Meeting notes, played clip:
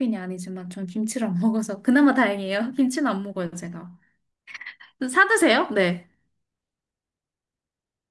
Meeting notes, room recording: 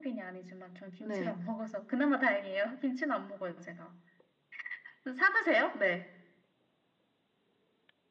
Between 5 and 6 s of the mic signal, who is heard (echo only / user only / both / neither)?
echo only